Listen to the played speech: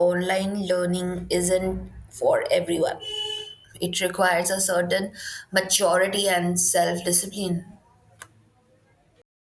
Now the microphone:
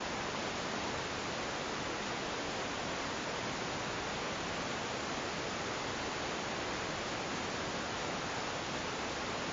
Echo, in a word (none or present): none